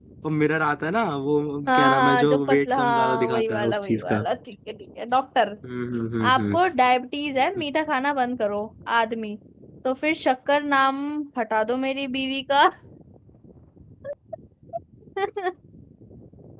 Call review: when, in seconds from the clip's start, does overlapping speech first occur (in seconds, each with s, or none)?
1.7 s